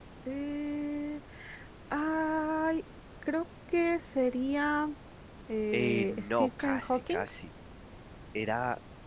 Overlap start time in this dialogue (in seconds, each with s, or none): 5.7 s